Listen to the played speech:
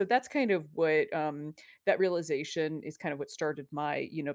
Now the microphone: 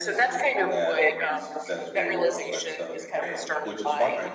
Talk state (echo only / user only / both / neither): both